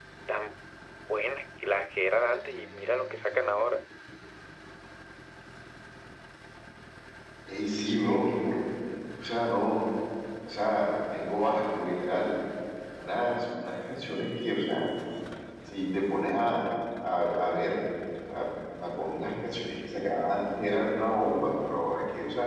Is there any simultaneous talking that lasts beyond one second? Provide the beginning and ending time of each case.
none

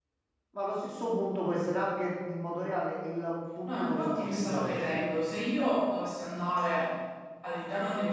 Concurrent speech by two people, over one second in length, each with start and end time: 3.6-5.0

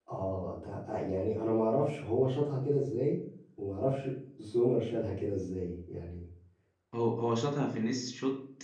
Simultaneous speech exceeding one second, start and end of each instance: none

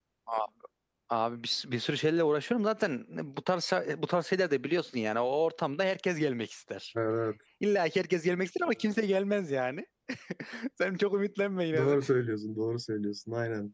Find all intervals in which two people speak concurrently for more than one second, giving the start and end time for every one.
none

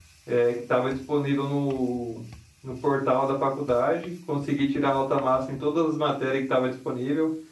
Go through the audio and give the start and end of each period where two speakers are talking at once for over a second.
none

